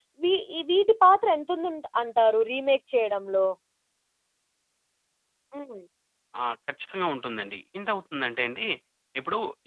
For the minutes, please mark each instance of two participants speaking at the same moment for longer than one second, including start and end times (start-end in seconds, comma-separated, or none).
none